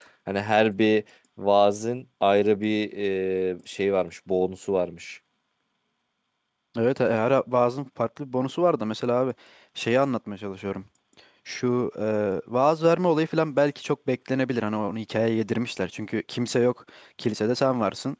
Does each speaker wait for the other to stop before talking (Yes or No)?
Yes